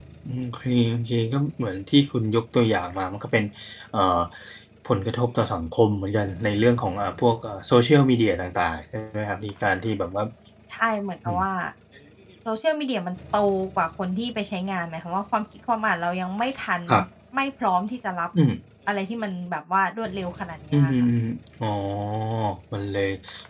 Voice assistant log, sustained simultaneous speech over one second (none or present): none